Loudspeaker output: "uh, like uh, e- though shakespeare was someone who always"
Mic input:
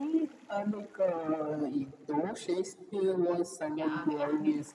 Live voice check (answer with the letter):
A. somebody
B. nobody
A